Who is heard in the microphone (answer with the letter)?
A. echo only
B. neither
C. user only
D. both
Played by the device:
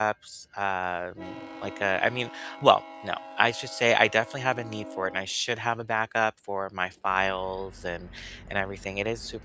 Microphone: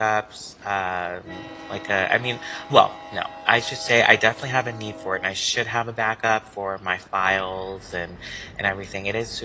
A